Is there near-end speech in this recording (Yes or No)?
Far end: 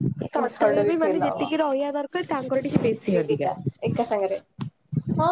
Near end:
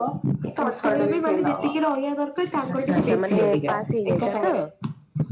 Yes